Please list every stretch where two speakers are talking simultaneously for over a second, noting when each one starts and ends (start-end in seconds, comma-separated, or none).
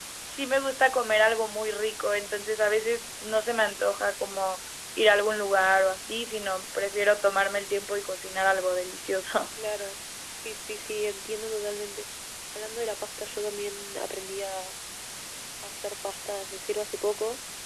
none